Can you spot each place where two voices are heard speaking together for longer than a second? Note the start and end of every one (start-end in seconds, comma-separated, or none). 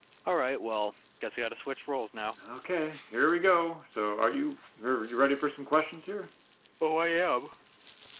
none